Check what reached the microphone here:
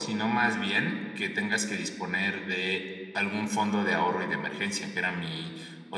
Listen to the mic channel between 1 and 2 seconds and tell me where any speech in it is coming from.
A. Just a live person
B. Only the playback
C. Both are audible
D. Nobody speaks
B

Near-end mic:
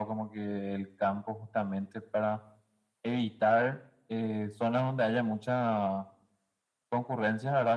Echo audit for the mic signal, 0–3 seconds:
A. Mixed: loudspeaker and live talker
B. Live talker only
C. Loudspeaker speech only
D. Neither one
C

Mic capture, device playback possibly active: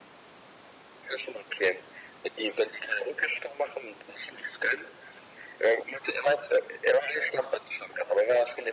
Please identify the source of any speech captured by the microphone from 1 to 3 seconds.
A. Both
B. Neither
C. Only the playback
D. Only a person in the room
C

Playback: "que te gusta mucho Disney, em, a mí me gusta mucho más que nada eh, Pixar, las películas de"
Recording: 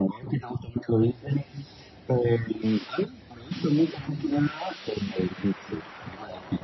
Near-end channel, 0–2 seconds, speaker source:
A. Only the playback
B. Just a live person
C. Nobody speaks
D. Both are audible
A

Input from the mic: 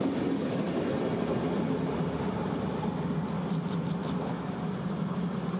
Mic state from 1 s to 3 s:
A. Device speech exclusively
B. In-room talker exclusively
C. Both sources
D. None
D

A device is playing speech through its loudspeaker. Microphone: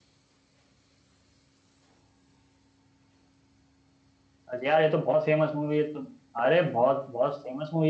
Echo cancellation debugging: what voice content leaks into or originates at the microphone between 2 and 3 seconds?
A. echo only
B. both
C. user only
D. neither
D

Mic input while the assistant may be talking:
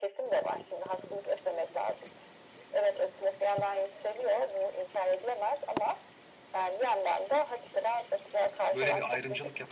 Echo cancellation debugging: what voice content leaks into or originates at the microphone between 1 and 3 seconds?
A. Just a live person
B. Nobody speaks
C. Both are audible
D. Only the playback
D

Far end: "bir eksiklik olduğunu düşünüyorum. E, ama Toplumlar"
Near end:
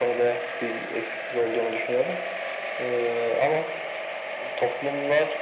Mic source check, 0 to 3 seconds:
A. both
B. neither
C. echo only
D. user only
C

